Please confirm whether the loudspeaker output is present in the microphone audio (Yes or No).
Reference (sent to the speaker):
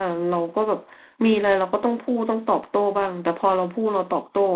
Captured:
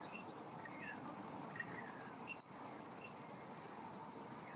No